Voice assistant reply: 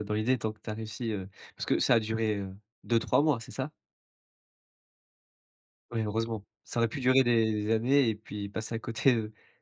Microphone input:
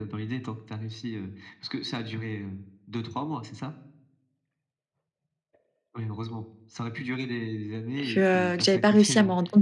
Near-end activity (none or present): present